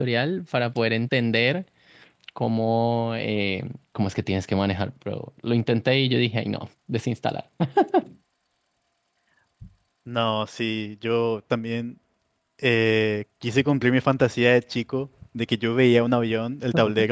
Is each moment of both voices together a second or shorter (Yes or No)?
Yes